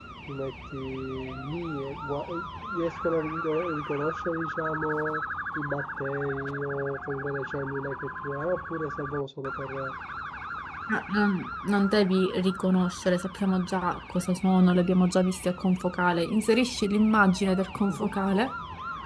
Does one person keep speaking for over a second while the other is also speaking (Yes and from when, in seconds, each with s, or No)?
No